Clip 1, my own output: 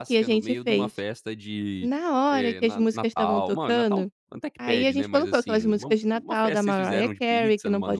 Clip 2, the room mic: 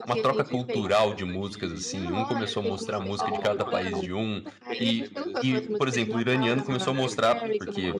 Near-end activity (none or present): present